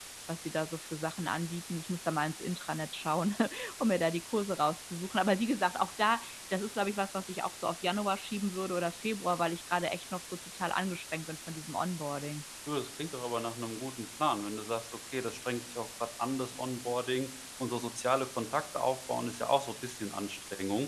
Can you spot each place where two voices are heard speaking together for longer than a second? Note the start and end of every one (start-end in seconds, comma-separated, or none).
none